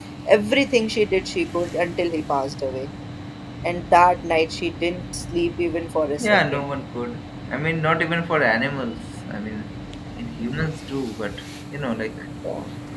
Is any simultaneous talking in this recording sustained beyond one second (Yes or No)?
No